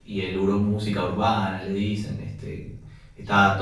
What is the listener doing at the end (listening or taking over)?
taking over